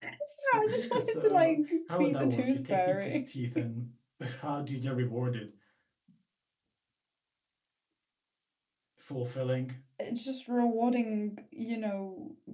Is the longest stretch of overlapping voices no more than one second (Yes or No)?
No